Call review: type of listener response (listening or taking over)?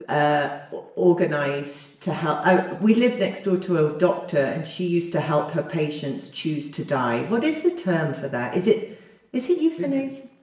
taking over